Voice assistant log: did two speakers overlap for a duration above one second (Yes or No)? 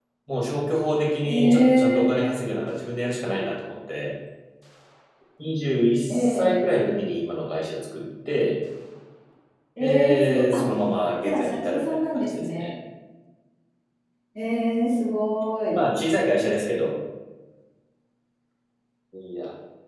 Yes